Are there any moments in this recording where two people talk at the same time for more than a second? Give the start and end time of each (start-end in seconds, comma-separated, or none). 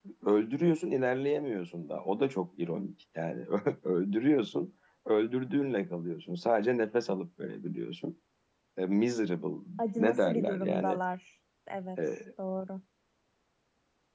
9.8-11.0